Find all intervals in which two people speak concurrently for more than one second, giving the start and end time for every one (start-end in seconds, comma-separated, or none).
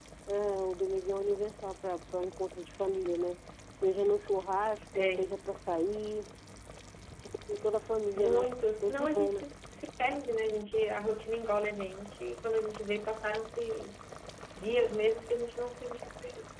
8.2-9.5